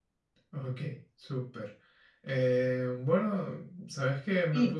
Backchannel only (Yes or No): Yes